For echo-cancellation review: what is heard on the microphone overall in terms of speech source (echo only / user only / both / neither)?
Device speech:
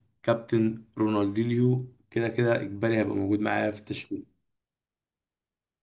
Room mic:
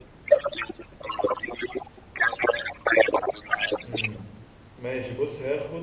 both